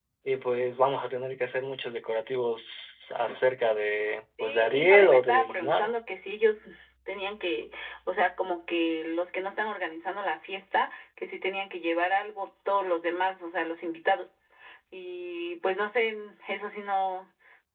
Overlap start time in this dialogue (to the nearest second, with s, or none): 4 s